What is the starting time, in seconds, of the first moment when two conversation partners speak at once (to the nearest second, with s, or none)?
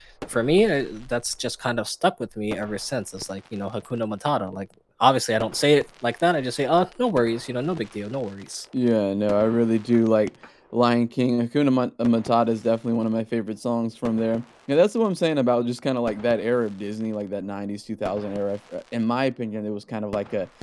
none